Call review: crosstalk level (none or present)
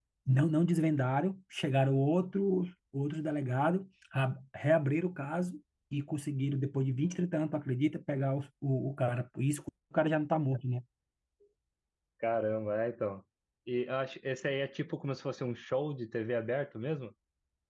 none